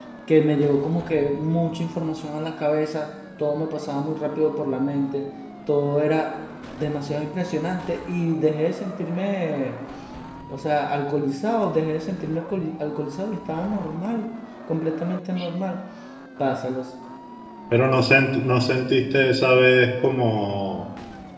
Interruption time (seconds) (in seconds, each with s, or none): none